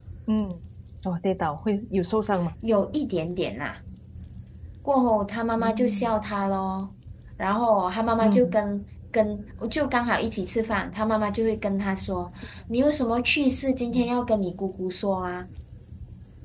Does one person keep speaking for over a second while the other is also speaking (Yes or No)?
No